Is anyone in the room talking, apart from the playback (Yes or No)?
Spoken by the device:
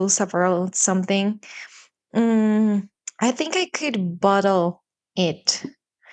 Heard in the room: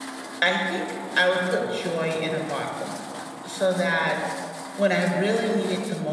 Yes